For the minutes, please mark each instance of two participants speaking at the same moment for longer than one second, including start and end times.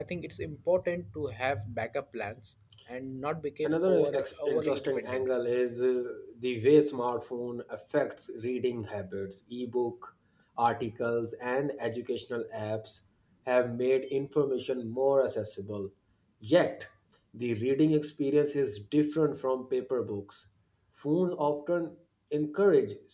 3.6-5.3

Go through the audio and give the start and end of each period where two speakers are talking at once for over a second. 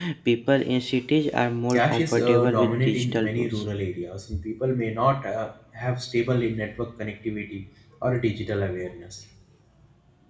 1.7-3.6

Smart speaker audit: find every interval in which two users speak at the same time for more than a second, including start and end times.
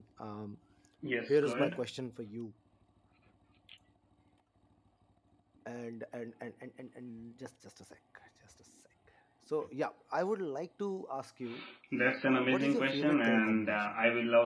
12.2-13.9

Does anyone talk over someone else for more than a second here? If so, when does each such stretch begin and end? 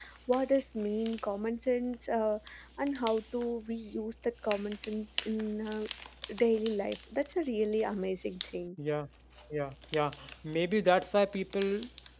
none

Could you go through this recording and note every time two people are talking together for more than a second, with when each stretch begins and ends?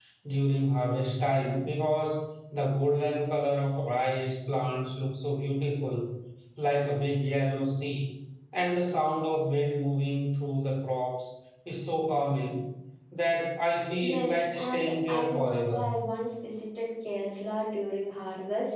14.0-15.8

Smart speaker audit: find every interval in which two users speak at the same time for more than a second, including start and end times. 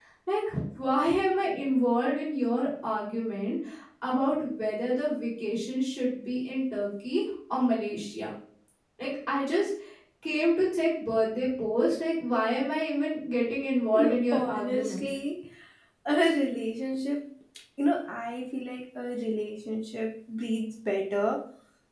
13.9-15.2

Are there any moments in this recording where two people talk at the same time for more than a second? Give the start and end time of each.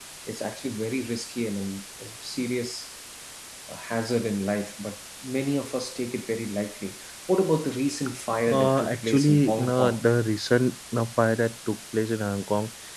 8.5-10.1

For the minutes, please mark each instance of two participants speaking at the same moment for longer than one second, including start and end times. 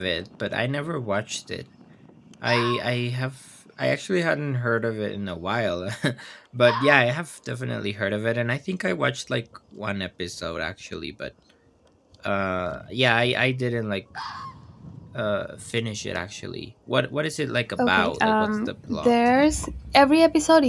17.8-19.1

